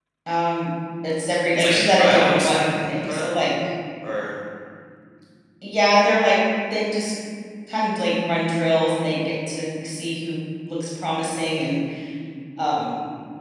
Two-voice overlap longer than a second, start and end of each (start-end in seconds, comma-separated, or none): 1.5-3.3